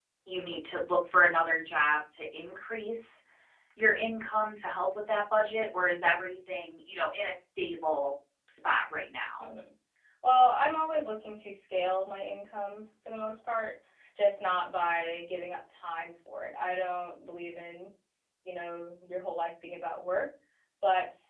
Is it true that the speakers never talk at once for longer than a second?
Yes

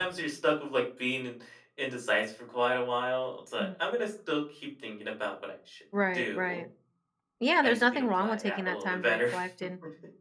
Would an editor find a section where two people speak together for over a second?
Yes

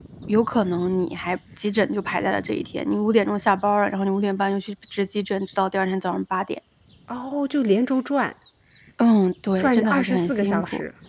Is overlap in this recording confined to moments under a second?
No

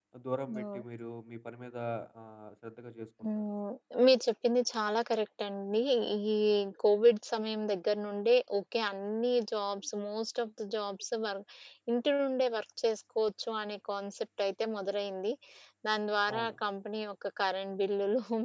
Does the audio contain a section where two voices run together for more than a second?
No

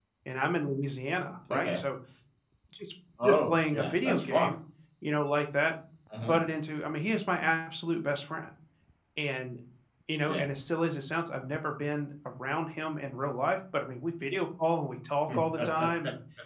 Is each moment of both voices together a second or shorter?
No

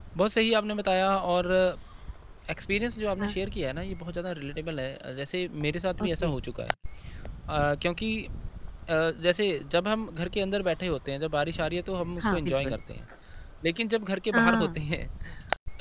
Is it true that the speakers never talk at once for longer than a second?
Yes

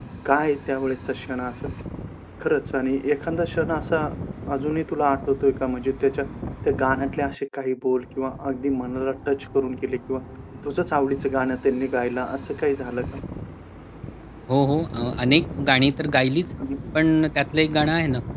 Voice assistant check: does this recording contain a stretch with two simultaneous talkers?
No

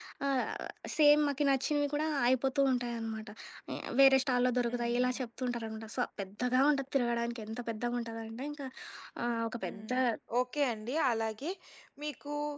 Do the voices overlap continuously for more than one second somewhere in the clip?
No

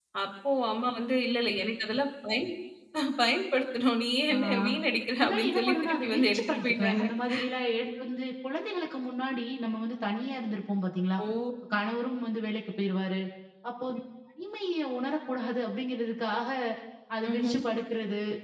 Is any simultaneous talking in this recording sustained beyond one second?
Yes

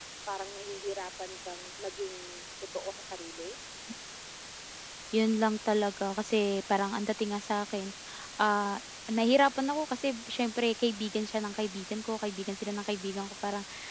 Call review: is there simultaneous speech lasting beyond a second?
No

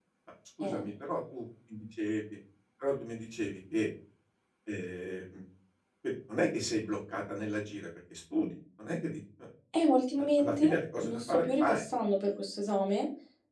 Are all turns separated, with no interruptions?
No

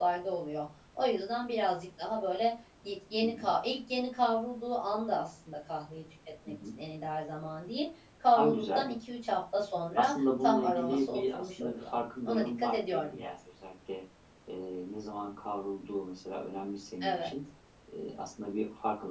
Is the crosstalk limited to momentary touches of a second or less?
No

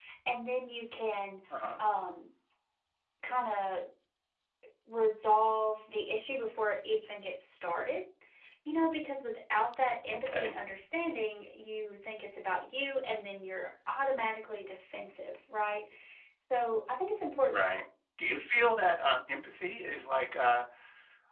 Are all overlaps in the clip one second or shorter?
Yes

